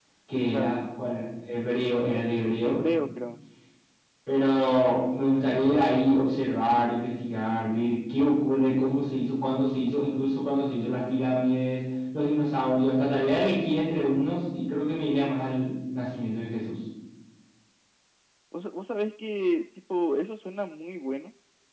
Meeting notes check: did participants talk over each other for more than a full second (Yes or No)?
No